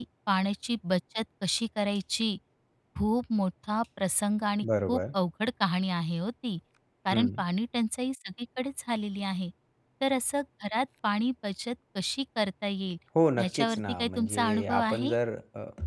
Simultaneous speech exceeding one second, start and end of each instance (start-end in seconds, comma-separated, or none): 13.4-15.1